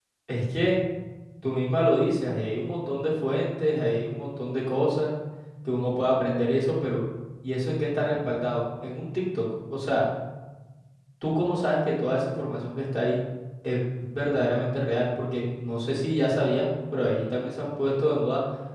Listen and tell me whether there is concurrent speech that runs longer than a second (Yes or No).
No